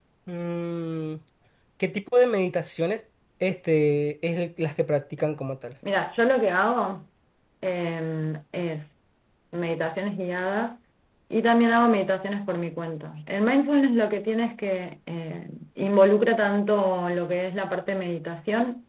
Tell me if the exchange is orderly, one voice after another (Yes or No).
Yes